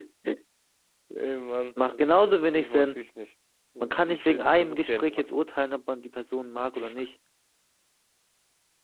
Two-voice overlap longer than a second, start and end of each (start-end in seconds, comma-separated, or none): 3.8-5.3